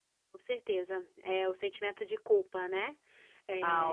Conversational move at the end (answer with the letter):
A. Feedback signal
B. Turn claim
B